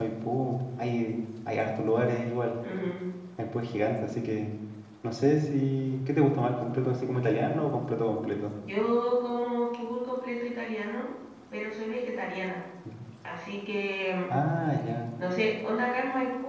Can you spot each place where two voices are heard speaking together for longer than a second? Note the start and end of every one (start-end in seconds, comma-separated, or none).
none